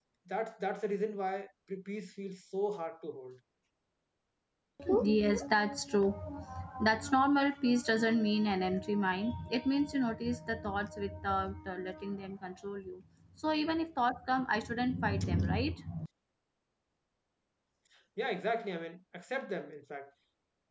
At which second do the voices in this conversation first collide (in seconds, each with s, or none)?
none